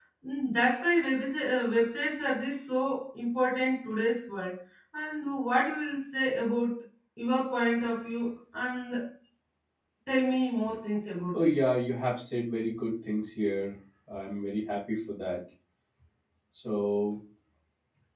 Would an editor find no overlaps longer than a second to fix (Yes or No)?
Yes